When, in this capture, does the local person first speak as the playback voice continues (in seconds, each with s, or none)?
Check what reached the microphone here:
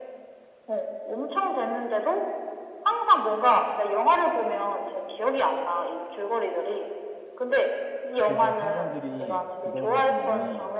8.2 s